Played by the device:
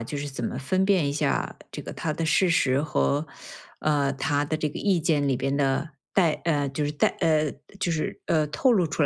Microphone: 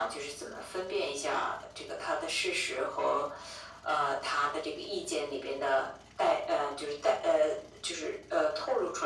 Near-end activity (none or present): none